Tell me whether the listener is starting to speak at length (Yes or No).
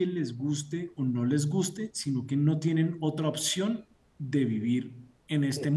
No